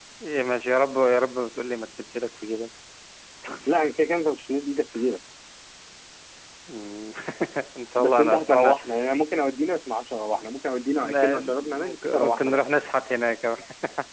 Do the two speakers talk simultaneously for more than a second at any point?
Yes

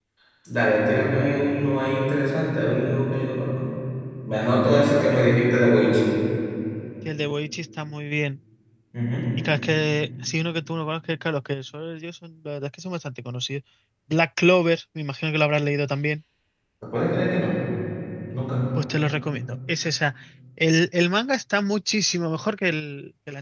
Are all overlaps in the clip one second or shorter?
Yes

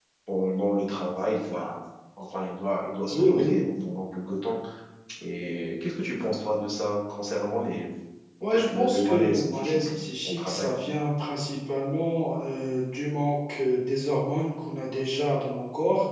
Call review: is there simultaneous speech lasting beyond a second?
Yes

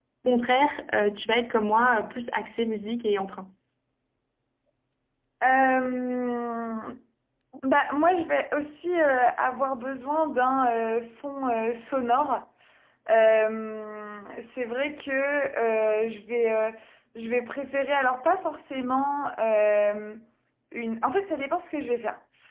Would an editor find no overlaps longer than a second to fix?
Yes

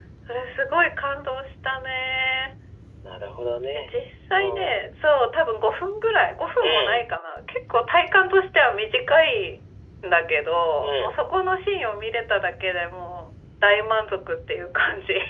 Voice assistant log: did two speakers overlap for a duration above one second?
No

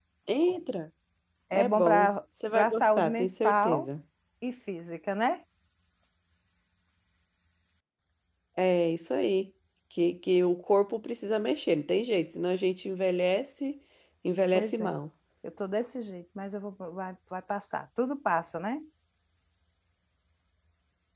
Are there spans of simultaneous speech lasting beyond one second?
Yes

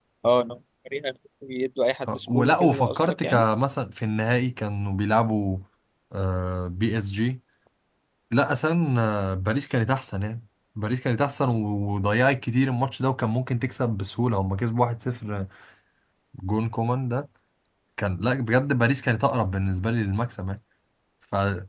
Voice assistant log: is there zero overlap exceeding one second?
No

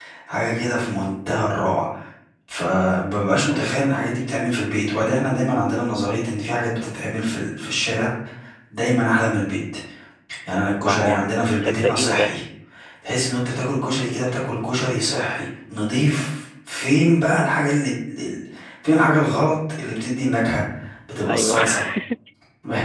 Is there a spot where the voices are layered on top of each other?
Yes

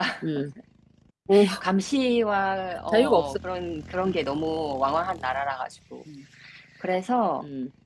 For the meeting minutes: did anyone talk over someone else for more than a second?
No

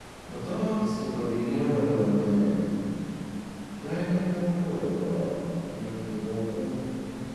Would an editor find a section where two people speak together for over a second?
No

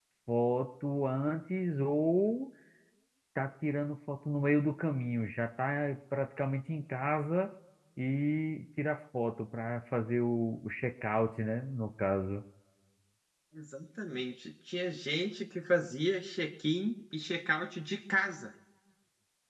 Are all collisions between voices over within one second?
Yes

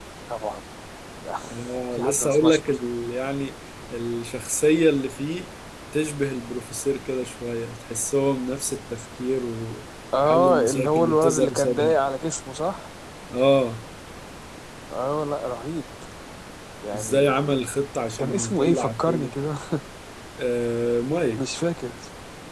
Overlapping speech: Yes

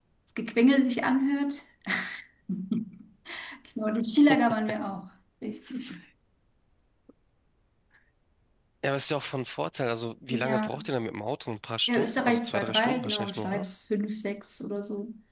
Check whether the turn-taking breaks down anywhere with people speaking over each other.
Yes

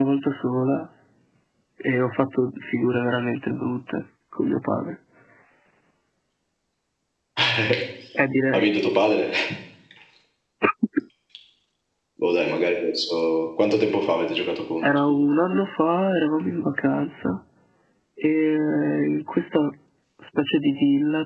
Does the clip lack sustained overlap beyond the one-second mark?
Yes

